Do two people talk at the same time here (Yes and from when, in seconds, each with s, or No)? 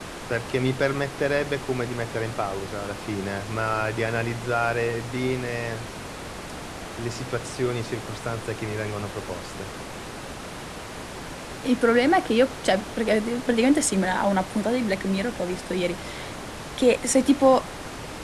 No